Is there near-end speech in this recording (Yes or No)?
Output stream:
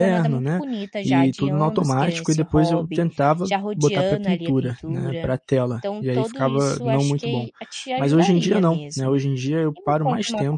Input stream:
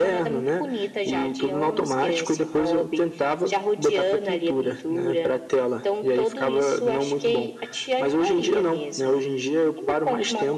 No